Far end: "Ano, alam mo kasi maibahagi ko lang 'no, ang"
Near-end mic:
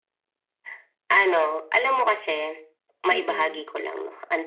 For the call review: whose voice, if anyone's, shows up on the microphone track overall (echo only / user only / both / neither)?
both